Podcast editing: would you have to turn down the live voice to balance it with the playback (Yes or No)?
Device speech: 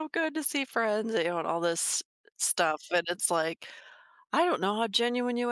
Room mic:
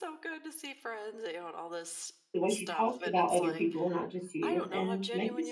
Yes